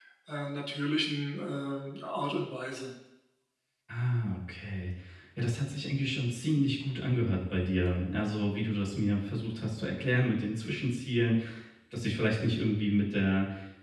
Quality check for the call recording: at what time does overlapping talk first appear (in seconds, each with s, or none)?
none